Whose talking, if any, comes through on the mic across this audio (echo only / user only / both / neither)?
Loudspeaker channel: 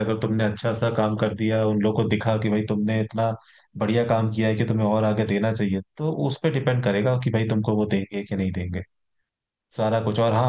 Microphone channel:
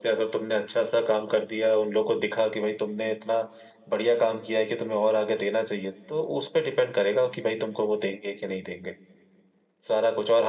echo only